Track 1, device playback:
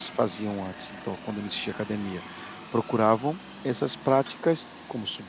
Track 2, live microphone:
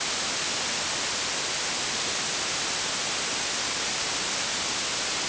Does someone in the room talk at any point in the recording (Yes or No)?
No